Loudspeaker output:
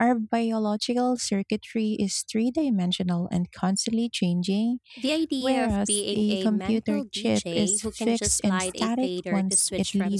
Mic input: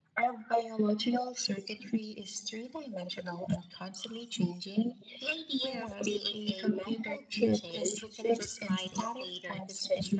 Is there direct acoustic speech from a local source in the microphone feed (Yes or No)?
No